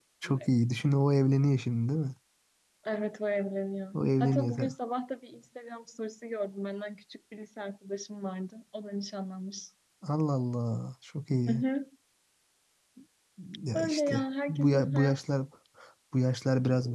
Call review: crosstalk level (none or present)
present